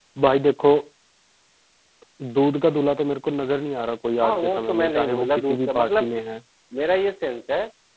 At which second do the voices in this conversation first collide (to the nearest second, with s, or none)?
4 s